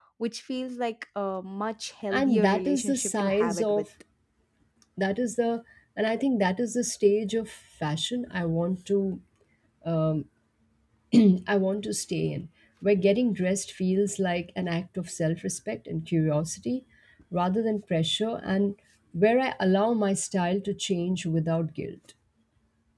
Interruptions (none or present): present